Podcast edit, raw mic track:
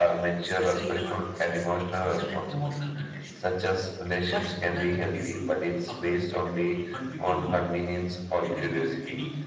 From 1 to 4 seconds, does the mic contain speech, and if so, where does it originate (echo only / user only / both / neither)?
echo only